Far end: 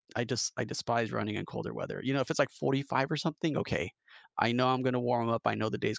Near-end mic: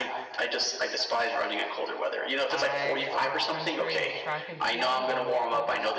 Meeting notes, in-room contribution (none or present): present